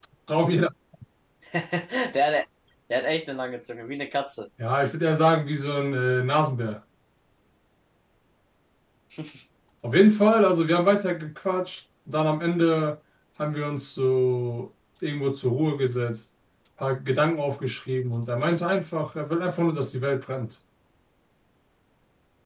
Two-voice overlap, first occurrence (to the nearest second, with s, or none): none